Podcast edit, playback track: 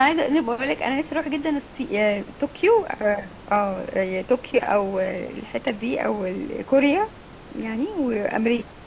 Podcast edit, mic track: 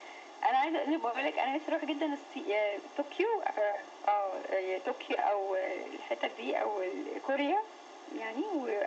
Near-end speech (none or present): none